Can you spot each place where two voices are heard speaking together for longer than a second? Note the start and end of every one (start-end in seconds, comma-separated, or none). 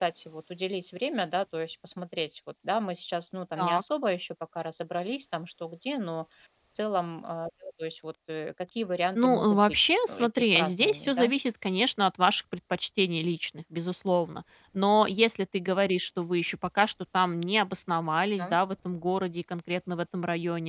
9.2-11.3